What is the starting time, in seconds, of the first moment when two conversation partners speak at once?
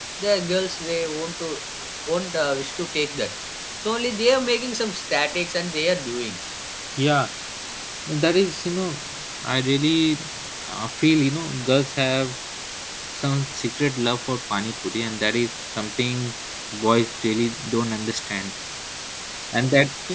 none

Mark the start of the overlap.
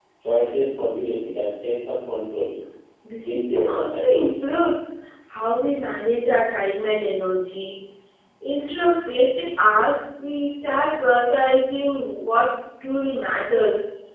3 s

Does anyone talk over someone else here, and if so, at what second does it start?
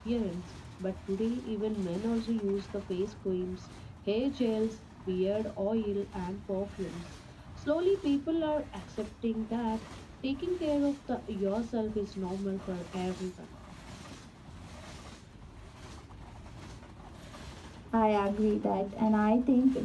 none

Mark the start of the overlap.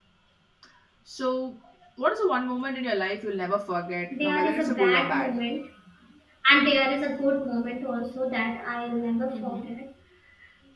4 s

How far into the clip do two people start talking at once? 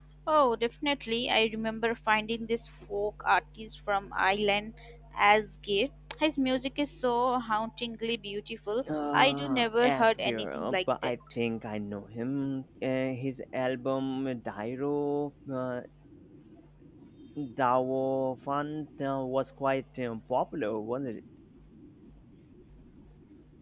9 s

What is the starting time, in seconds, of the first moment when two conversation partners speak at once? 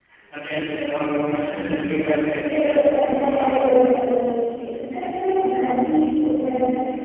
2 s

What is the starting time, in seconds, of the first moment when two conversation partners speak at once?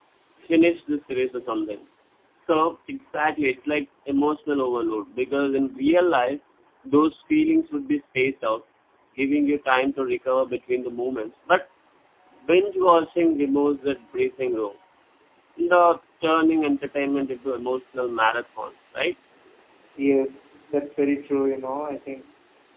none

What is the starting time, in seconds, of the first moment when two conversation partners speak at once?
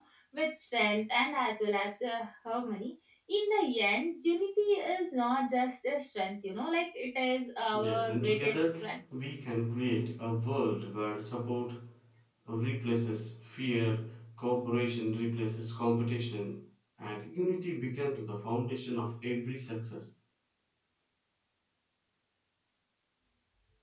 8 s

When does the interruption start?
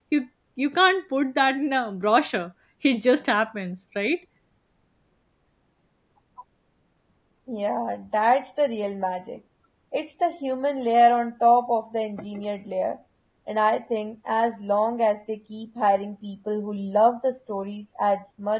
none

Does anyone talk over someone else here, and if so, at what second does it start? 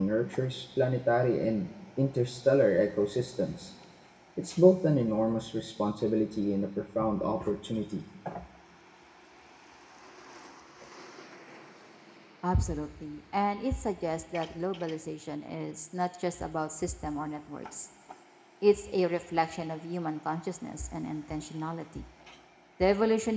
none

